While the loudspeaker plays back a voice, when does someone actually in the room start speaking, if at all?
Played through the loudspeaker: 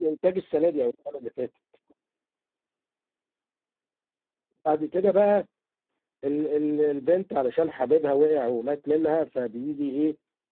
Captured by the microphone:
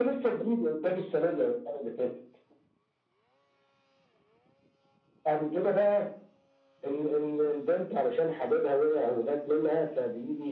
none

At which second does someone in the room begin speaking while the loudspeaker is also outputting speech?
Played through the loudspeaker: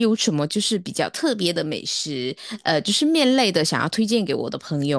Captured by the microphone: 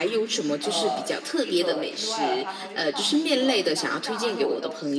0.6 s

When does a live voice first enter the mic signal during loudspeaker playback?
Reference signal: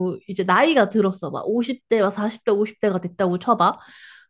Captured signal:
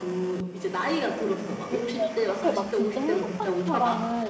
1.7 s

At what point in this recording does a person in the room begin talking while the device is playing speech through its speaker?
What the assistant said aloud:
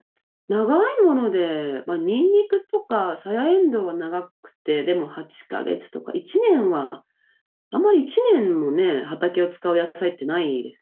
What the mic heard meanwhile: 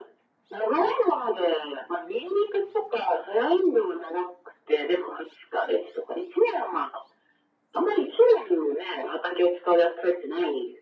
none

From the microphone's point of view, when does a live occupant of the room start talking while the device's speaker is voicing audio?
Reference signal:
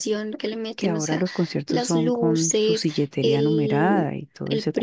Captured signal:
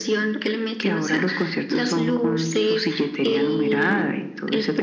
none

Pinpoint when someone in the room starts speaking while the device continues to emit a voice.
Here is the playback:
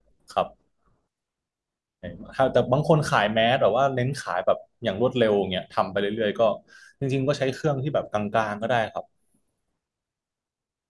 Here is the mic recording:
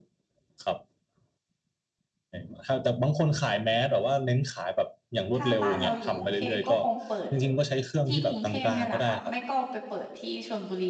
5.4 s

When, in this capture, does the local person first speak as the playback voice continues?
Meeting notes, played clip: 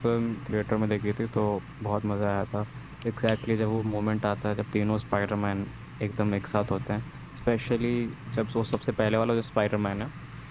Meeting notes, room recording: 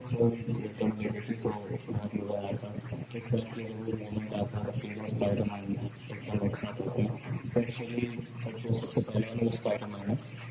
none

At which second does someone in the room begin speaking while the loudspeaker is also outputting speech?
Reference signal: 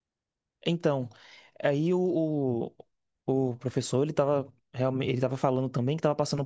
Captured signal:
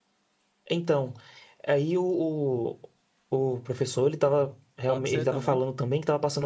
4.8 s

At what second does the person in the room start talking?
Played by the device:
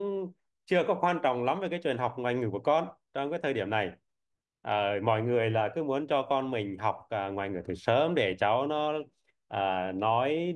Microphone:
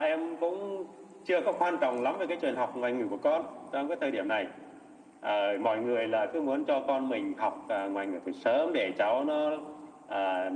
none

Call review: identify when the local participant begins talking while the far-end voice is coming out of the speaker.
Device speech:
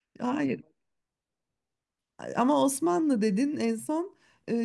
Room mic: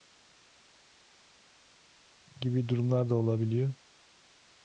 2.4 s

